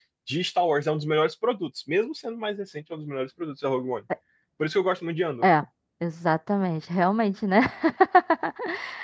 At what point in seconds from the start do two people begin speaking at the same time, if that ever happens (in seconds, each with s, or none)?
none